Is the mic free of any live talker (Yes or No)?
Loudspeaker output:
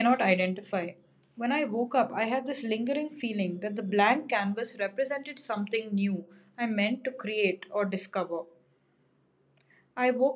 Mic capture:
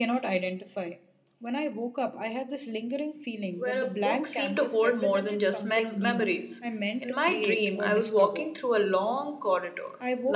No